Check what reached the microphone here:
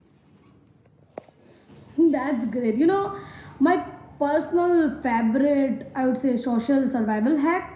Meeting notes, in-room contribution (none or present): none